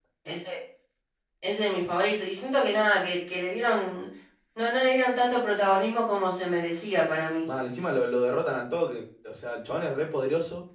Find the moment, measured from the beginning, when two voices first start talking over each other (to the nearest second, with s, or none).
none